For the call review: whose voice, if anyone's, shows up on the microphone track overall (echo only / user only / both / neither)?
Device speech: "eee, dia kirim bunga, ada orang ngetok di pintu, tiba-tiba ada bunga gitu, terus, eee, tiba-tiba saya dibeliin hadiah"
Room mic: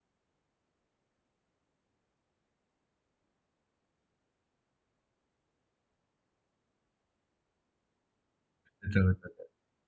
user only